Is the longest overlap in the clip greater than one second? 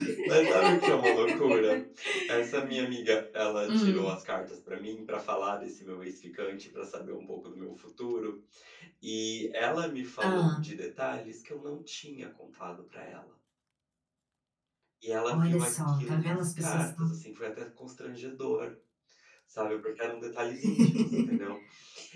Yes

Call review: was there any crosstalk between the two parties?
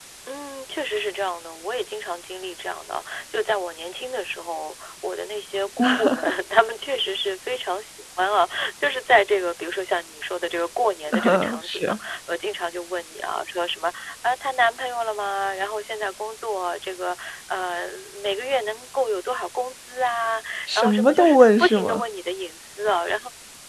Yes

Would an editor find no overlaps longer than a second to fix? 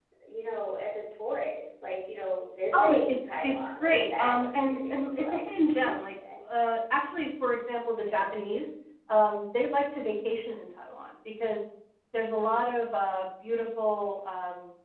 No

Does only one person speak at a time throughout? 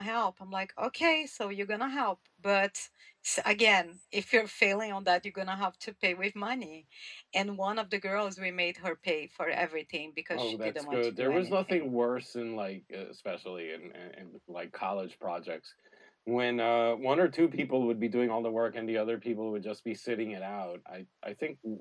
No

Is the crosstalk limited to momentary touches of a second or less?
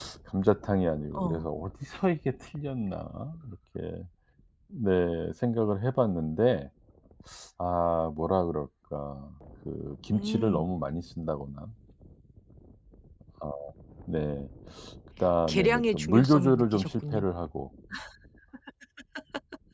No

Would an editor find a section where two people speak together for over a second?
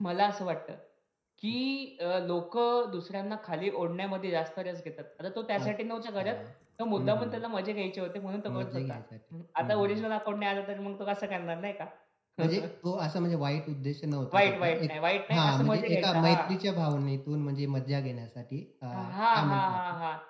Yes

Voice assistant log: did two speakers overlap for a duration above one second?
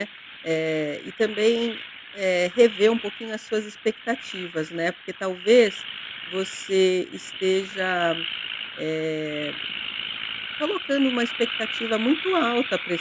No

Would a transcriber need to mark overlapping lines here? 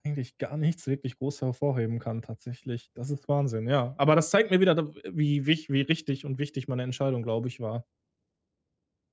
No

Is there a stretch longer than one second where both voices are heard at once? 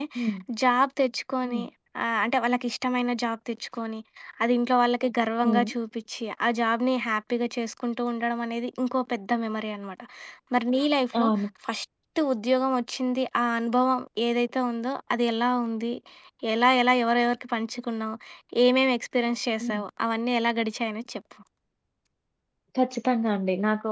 No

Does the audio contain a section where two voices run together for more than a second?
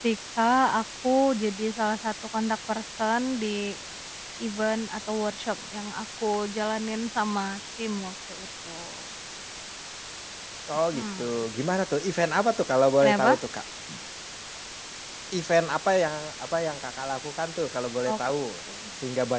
No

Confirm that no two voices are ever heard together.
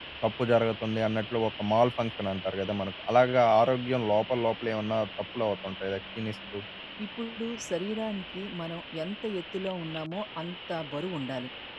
Yes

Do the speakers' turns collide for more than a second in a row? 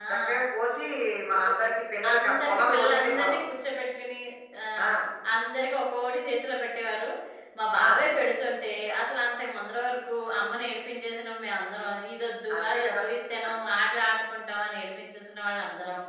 Yes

